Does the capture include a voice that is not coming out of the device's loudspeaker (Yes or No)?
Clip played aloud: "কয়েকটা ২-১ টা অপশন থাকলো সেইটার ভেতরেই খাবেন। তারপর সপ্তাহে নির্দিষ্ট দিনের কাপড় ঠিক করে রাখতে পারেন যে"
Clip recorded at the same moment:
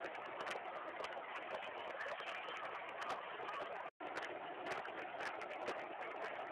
No